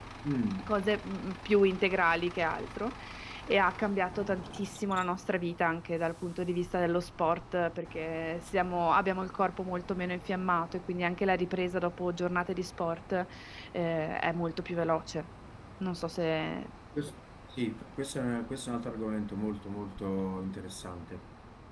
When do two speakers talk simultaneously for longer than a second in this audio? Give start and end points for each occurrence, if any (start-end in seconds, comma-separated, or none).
none